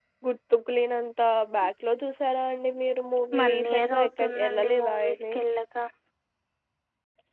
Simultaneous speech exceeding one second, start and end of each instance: 3.4-5.2

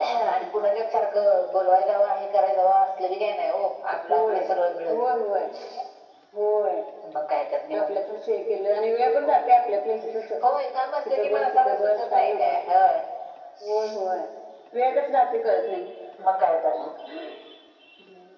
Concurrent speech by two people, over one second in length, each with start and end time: 11.1-12.5

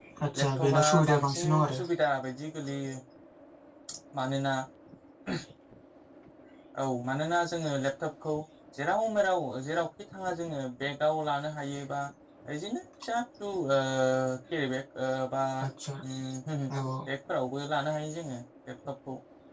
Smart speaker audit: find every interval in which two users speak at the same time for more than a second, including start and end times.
0.6-1.8

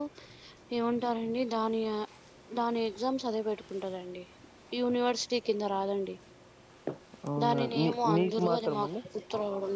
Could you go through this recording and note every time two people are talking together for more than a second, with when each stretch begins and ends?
7.4-8.9

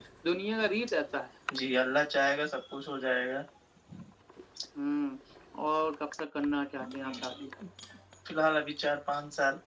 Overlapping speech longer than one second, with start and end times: none

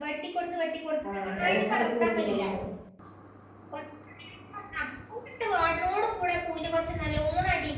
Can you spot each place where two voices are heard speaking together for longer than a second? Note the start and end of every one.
1.1-2.4

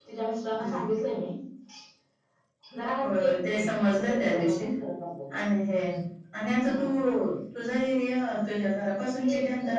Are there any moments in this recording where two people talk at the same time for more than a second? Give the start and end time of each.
3.0-4.6

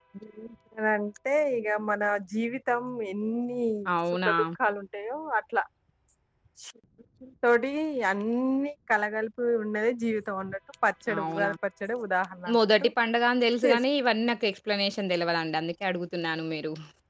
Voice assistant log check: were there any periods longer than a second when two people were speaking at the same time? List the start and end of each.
none

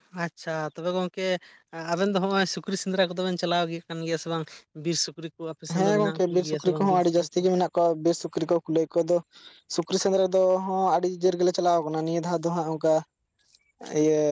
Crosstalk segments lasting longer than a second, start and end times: 5.8-7.4

